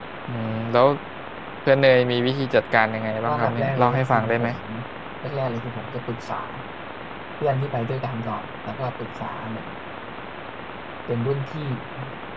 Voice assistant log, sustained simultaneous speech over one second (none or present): present